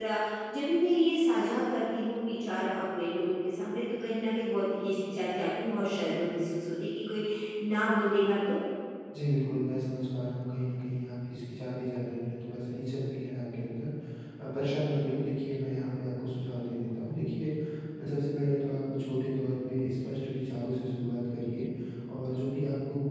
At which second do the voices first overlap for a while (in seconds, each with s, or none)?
none